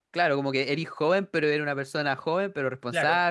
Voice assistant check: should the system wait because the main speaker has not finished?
No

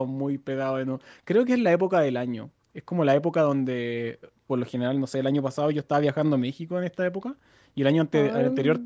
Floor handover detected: No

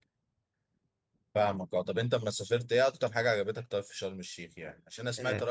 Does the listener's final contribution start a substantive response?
No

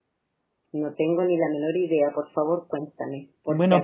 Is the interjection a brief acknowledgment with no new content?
No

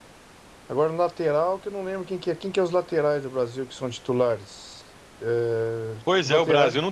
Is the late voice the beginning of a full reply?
Yes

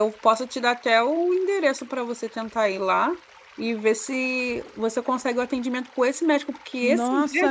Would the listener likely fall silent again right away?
No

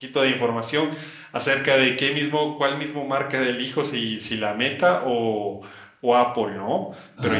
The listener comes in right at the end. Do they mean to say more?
No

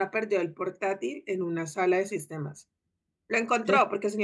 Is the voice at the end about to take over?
No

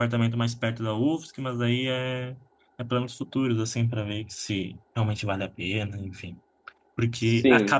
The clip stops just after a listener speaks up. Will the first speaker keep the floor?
Yes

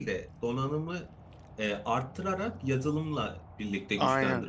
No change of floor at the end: No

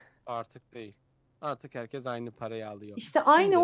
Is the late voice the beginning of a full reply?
Yes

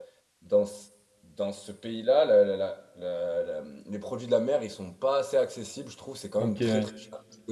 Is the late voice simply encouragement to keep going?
Yes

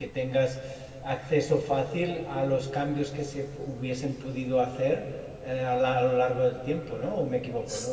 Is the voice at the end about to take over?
Yes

